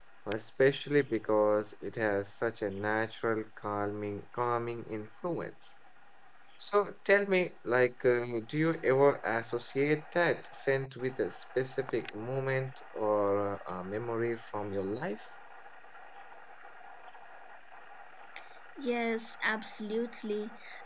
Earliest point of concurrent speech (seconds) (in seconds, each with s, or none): none